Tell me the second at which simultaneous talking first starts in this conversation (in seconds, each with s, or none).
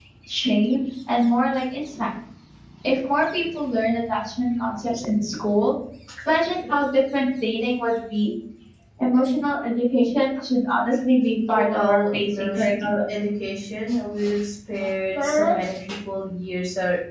11.6 s